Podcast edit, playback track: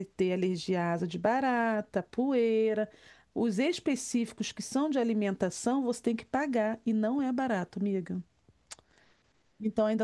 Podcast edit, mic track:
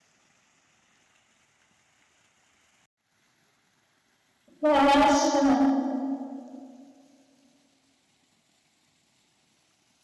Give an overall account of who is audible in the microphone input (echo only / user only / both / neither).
user only